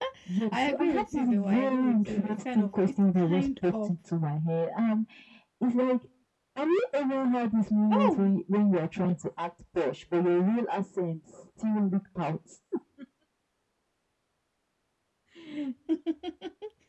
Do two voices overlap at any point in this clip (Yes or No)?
Yes